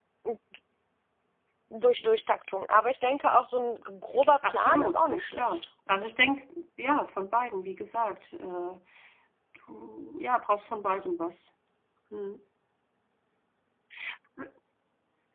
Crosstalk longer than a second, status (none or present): present